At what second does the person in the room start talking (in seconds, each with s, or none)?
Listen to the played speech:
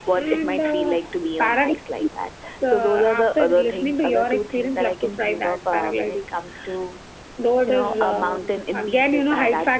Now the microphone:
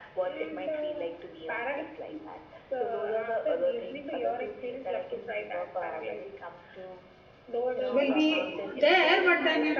7.9 s